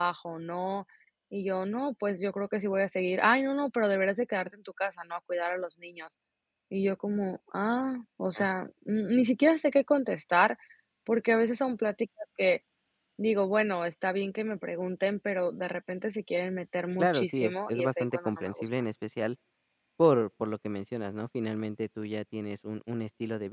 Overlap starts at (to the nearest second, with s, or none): 17 s